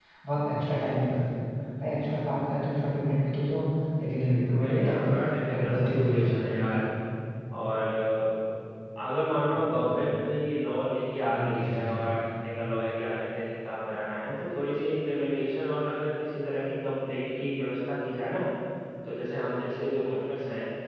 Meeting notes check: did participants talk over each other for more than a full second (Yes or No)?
Yes